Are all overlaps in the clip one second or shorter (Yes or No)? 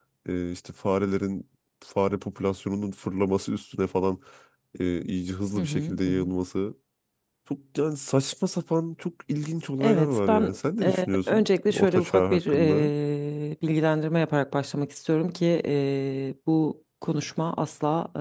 No